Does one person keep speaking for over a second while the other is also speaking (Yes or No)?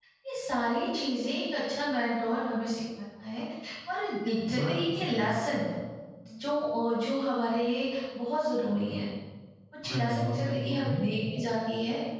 Yes